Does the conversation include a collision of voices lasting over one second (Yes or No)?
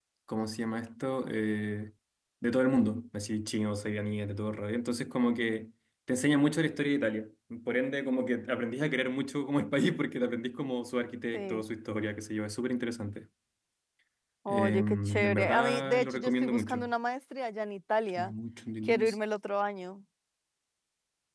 Yes